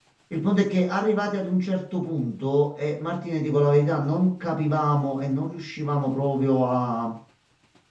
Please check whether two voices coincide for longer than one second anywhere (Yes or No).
No